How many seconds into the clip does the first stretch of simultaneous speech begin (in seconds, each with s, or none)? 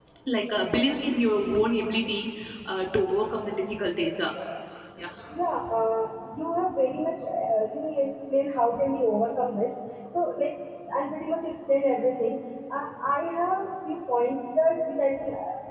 none